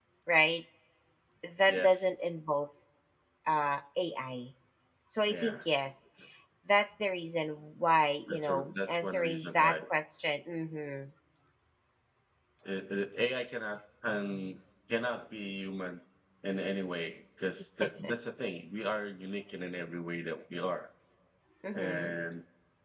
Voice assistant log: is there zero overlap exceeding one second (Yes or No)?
No